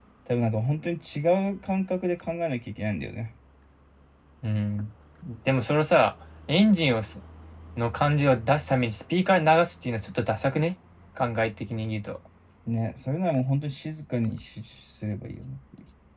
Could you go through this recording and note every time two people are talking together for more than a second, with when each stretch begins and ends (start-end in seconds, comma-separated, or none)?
none